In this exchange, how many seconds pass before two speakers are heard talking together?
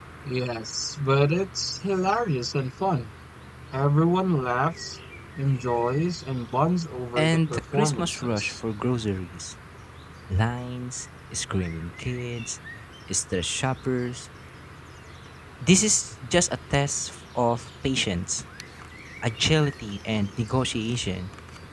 7.2 s

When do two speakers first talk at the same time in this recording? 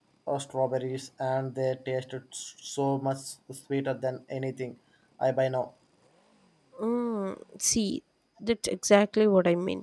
none

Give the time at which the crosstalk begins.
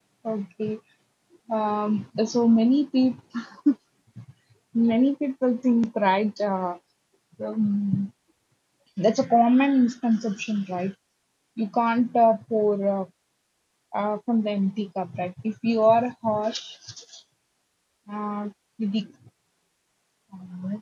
none

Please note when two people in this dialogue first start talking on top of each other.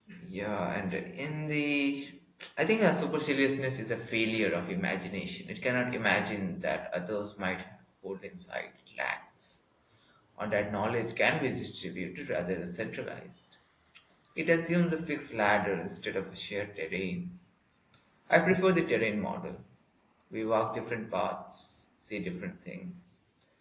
none

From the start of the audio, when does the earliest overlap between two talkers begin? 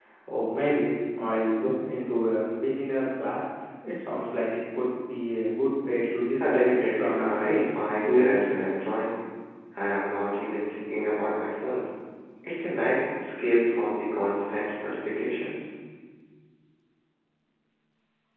6.4 s

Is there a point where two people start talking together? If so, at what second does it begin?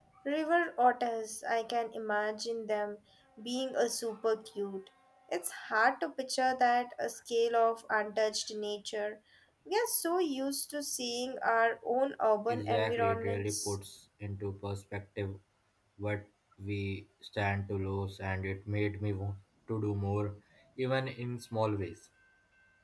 12.5 s

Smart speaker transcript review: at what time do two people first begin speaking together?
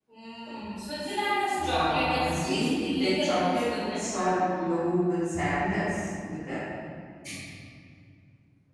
1.5 s

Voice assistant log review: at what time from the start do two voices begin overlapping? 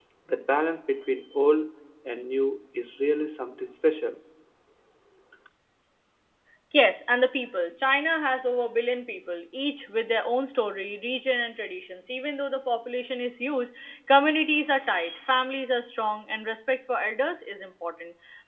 none

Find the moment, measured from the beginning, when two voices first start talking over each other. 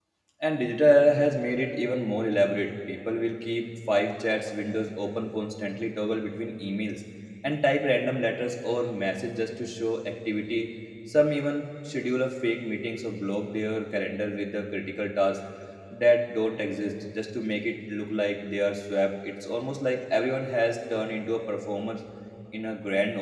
none

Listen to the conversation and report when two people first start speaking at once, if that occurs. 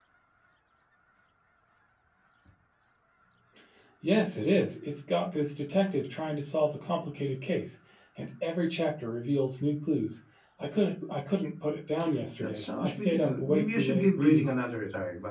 12.4 s

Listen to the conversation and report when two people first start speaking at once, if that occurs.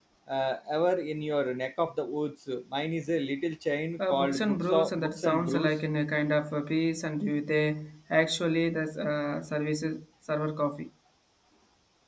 4.0 s

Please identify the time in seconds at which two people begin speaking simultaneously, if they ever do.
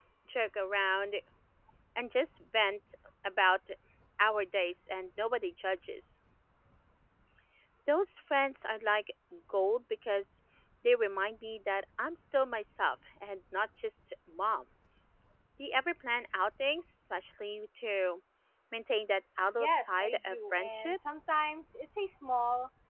19.6 s

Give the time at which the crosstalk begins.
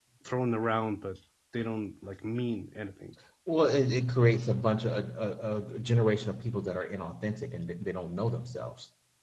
none

